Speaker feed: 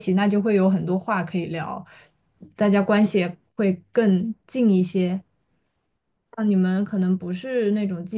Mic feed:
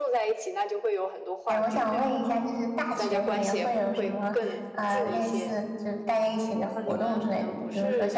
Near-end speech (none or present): present